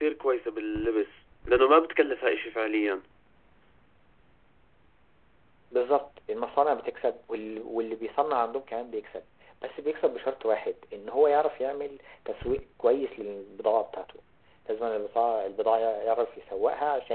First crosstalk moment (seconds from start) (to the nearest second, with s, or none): none